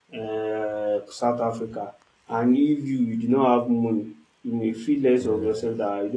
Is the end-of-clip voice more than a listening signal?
No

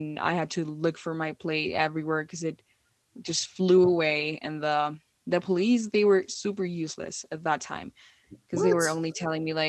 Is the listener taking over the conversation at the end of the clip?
No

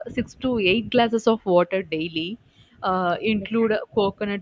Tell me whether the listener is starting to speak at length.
No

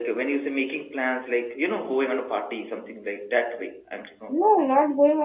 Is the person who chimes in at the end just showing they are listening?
No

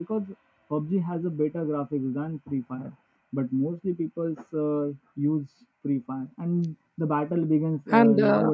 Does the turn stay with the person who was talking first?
No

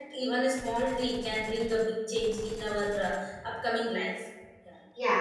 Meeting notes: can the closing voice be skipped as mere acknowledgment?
No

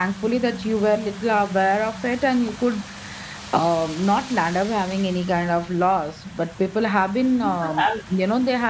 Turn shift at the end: No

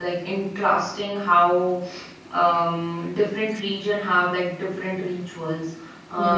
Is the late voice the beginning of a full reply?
No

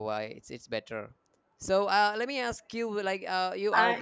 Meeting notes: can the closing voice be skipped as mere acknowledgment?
Yes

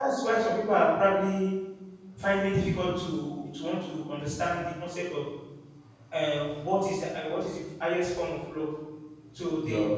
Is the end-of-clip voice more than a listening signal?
No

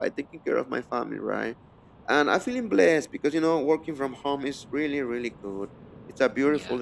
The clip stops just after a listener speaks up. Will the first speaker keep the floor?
Yes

